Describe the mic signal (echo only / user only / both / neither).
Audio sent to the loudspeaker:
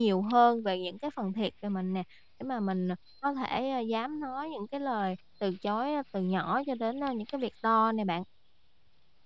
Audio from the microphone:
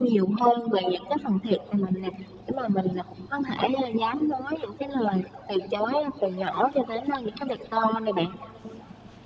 echo only